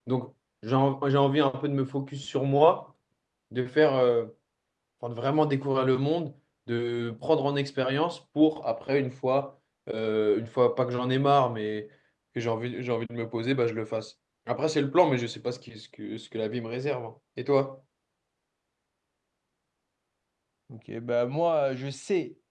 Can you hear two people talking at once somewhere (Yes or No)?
No